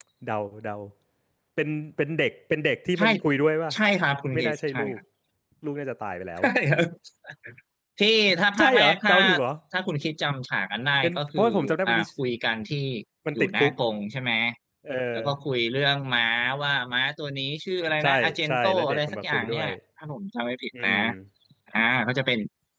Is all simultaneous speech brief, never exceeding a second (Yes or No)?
No